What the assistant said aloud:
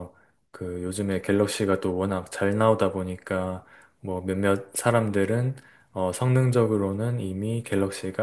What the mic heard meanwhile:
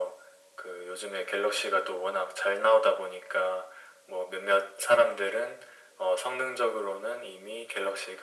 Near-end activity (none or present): none